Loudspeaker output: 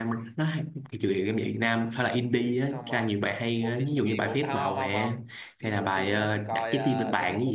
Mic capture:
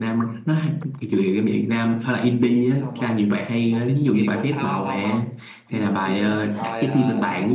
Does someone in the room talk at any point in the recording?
No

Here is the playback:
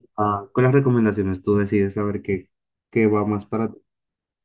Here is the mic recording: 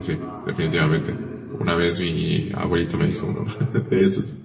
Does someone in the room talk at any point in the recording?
Yes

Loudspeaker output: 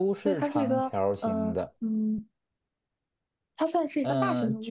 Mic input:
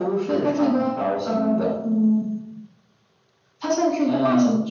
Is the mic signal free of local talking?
Yes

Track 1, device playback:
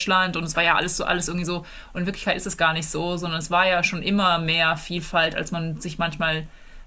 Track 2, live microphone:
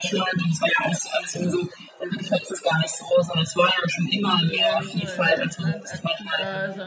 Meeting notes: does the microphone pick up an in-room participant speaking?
Yes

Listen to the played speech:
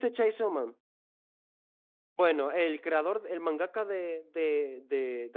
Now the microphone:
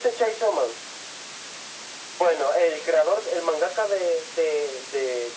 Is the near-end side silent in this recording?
Yes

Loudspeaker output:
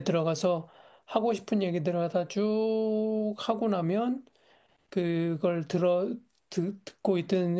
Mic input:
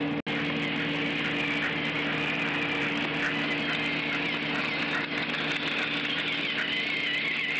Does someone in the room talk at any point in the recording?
No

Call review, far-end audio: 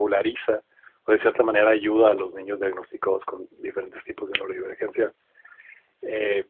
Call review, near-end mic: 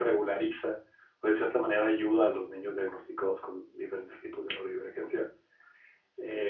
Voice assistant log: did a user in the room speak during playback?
No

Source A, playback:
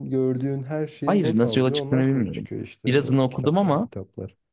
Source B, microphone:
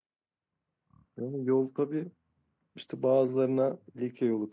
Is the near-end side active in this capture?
Yes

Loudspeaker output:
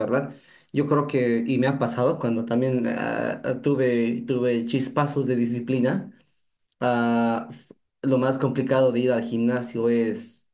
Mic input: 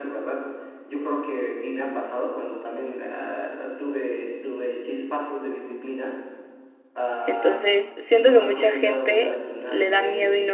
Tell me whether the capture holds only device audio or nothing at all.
No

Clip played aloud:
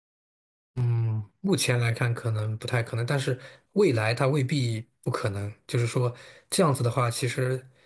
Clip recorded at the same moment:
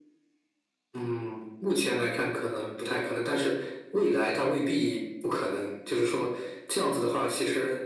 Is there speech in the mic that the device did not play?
No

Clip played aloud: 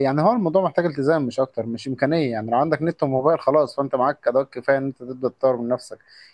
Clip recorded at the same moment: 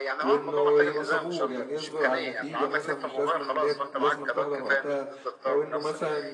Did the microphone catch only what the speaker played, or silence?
No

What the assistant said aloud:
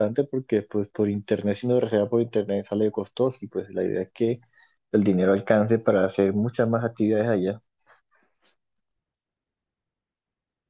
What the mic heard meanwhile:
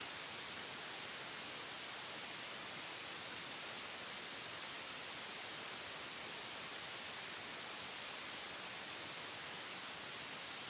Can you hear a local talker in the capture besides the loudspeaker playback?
No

